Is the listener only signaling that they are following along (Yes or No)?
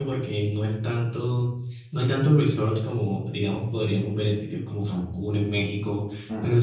Yes